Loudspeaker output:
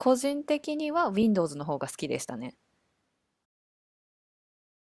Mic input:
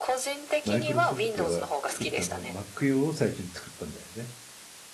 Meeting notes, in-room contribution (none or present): present